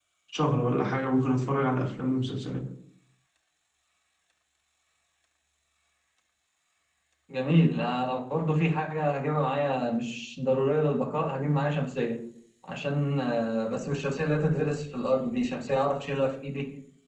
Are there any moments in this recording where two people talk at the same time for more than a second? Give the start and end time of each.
none

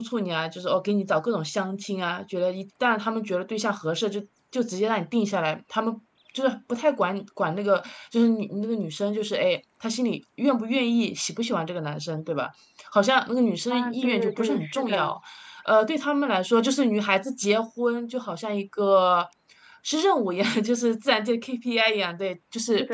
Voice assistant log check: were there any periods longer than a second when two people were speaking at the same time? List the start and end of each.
13.7-15.1

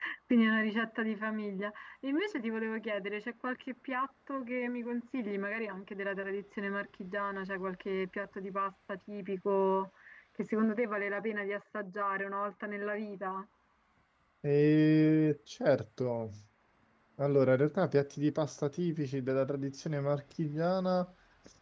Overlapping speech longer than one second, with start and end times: none

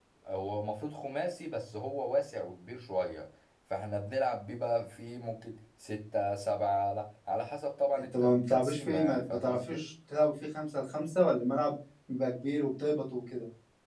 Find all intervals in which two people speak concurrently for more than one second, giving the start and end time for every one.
8.0-9.8

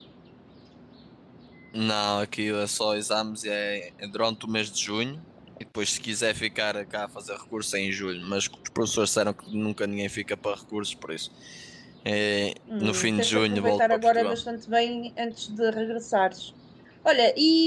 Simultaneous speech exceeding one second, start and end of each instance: 12.8-14.4

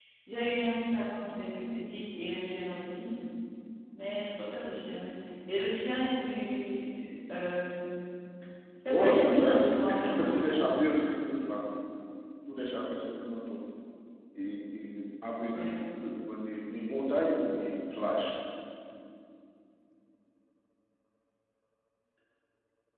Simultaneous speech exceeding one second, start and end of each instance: 8.9-10.7

